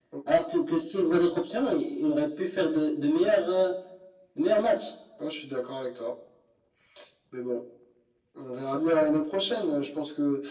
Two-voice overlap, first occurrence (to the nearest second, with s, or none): none